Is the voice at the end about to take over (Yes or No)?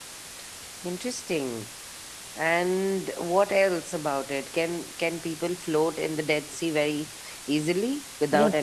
Yes